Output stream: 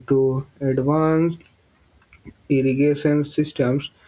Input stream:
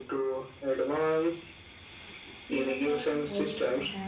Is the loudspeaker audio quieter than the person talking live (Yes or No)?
No